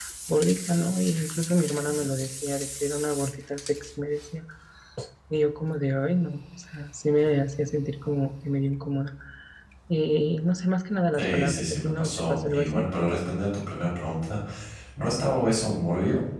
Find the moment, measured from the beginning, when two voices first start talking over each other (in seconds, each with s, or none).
11.1 s